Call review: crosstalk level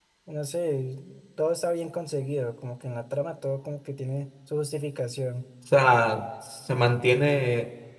none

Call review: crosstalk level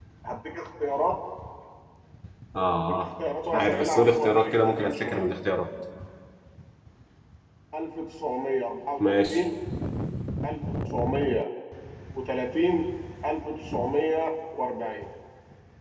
present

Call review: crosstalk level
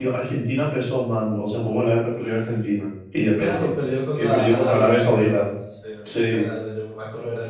present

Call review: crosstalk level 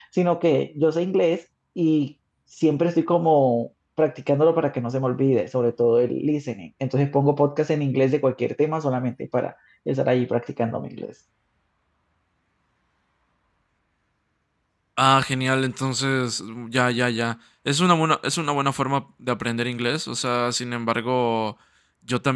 none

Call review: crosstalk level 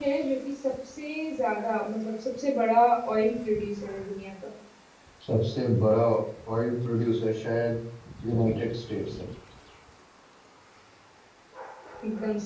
none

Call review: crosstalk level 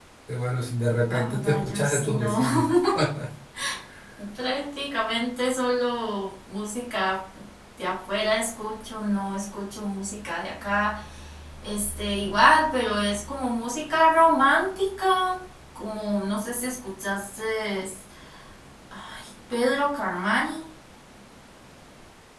present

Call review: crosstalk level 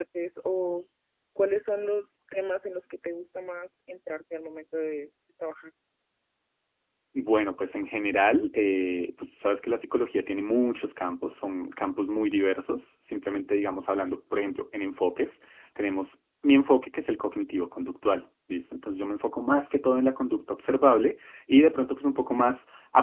none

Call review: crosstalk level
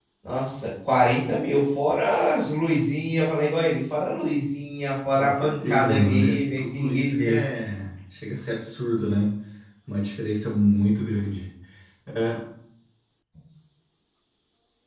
present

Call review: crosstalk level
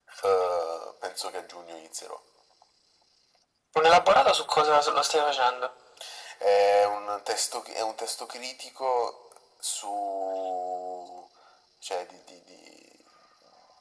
none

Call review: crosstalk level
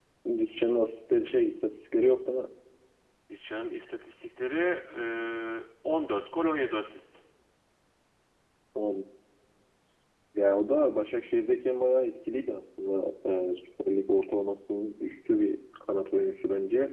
none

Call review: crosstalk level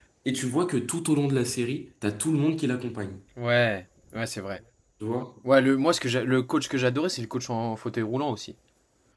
none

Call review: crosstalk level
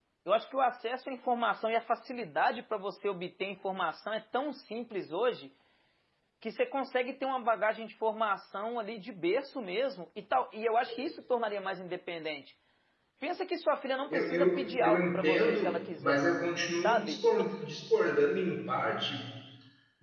present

